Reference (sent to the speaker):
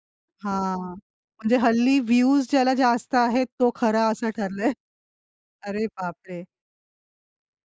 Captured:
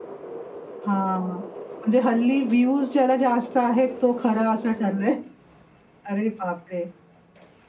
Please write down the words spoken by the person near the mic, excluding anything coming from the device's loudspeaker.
none

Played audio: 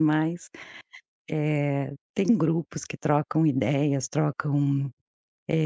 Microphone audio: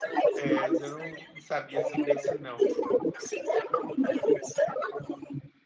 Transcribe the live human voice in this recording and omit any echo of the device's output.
É mas eu não não sabia sobre isso não.

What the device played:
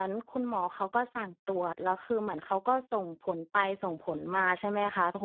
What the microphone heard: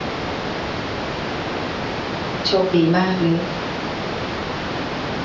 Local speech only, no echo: โชคดีมากเลย

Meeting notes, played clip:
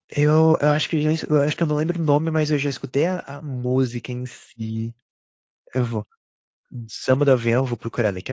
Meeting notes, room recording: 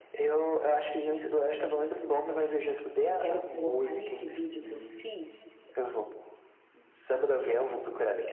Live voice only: eu quero colocar nesse vídeo que eu fiz,

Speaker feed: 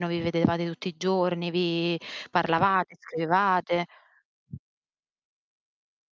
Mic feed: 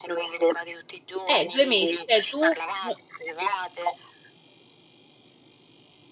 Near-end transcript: Eh! 2 mesi, cioè tu, n

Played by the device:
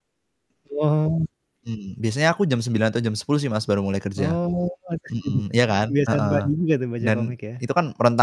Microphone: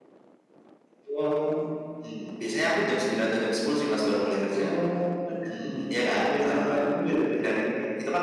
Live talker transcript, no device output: none

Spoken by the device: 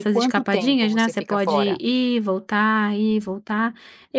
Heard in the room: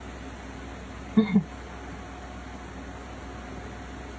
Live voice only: Uhum.

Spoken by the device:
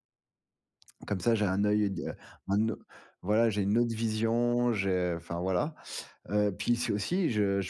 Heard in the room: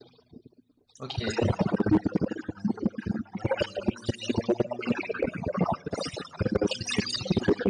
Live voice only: OK.

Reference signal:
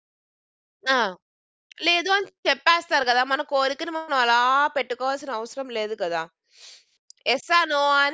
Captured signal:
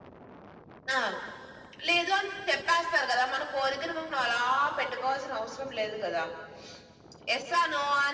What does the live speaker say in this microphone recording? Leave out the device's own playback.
none

